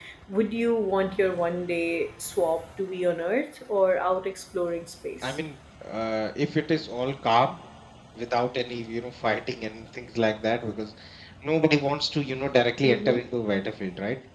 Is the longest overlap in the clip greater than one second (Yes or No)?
No